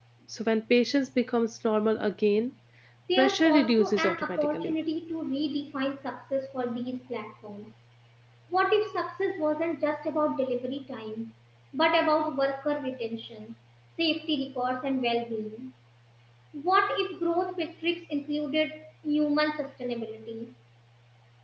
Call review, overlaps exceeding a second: present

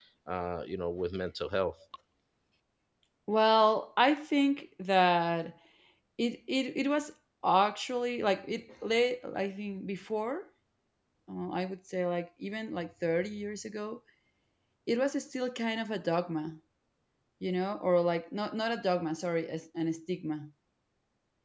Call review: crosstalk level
none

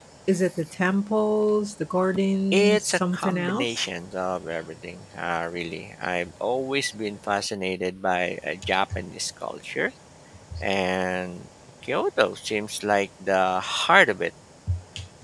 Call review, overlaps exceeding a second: present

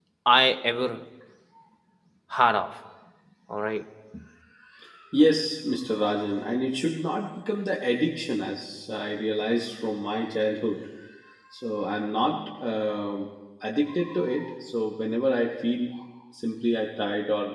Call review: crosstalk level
none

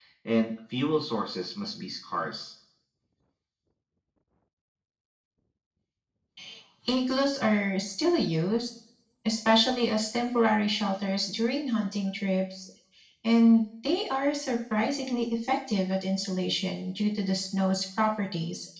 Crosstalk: none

